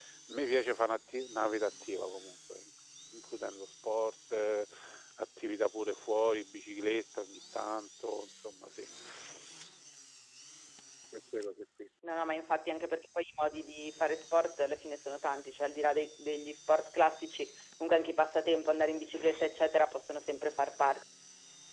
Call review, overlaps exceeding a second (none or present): none